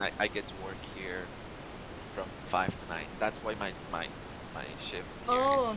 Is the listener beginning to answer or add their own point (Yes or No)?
Yes